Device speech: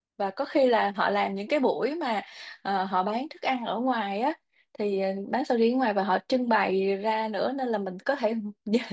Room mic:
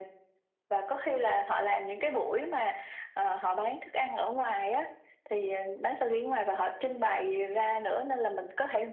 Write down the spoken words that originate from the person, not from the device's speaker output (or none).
none